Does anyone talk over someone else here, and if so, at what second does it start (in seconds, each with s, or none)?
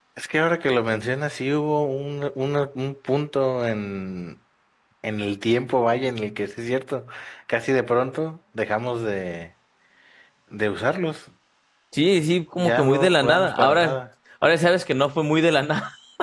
12.6 s